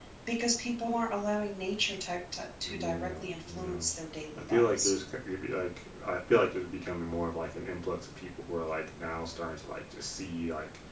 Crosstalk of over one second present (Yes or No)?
Yes